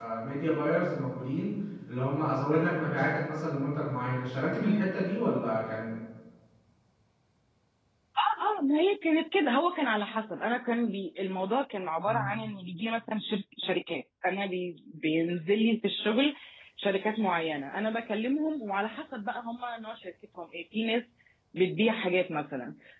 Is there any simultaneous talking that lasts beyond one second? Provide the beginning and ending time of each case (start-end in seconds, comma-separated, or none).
none